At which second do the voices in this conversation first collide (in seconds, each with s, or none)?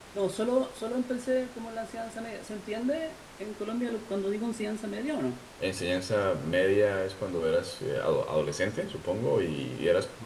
none